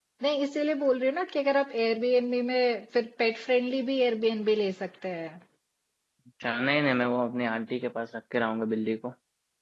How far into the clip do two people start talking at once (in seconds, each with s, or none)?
none